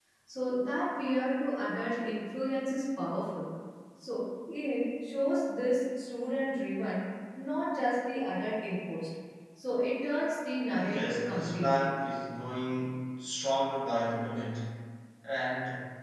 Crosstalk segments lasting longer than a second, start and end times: 10.7-11.9

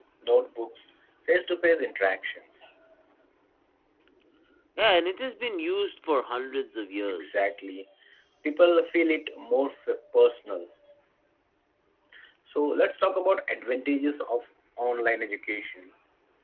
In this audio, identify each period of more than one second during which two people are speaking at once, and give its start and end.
none

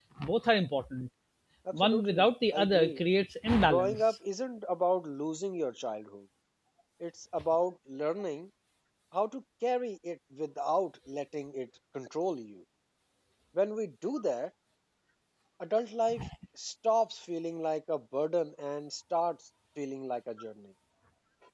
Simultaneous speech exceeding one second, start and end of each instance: 1.7-3.0

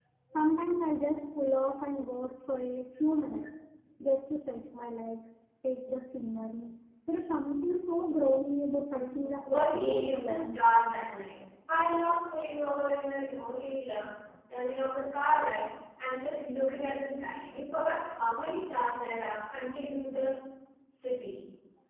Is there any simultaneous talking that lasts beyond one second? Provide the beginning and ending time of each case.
8.9-10.8

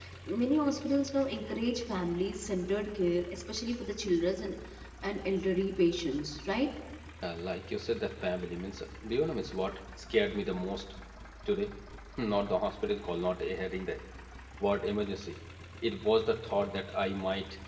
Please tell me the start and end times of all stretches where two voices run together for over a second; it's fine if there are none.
none

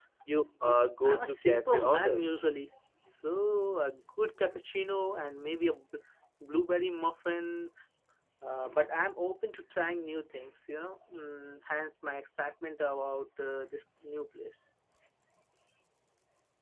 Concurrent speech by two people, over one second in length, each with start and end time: 1.1-2.4

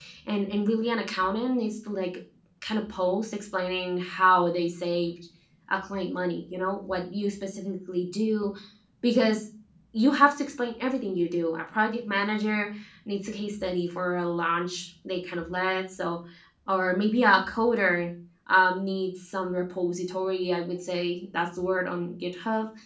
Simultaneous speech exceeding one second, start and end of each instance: none

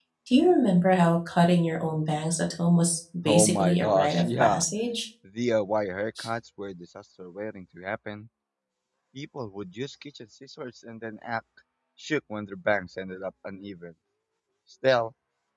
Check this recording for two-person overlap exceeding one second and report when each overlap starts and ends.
3.2-4.6

